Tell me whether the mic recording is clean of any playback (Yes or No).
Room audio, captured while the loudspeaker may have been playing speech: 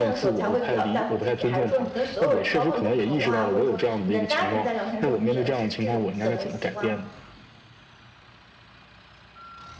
No